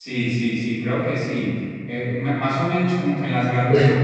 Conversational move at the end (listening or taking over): listening